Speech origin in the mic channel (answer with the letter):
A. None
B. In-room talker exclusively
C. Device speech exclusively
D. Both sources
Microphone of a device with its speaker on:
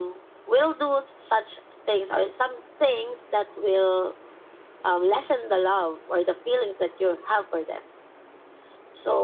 C